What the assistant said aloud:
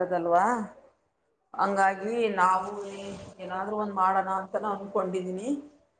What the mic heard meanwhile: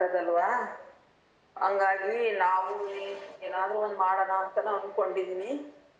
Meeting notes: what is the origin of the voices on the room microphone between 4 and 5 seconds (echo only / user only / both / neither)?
echo only